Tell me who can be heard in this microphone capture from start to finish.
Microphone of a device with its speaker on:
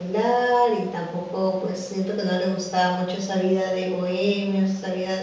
user only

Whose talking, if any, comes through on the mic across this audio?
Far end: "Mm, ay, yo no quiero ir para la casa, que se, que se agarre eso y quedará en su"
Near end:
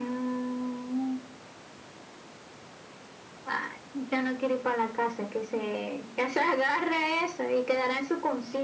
echo only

